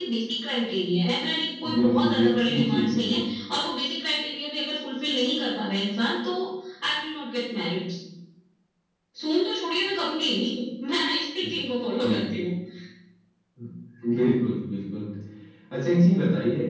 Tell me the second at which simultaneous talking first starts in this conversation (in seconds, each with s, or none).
1.6 s